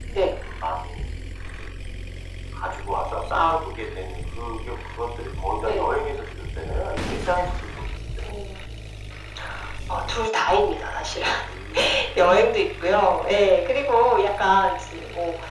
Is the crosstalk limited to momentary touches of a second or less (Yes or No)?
Yes